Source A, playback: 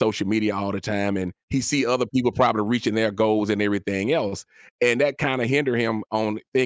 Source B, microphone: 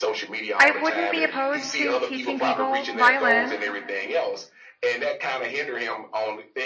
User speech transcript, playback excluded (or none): I wouldn't be opposed to teaching people violin.